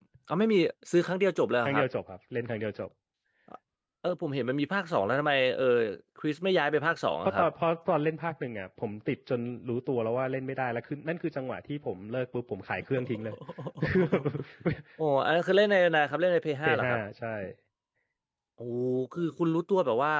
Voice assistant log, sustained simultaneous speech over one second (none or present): none